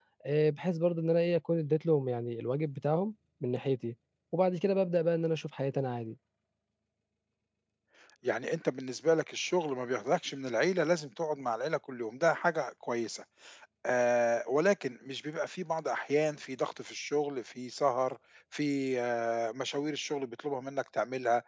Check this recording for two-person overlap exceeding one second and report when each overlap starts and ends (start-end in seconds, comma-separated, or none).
none